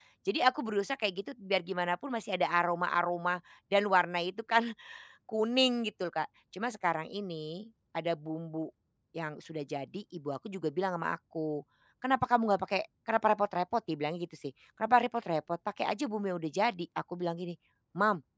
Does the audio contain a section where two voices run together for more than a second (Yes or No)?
No